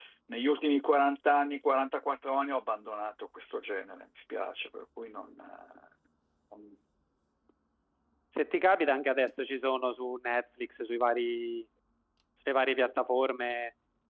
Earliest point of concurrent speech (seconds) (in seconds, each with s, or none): none